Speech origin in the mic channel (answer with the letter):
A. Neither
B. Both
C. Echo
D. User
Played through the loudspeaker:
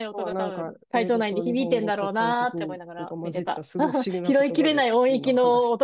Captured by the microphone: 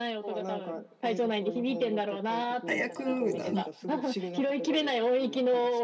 B